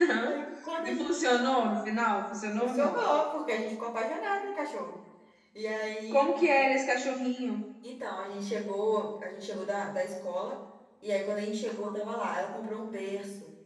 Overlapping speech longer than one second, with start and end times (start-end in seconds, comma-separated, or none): none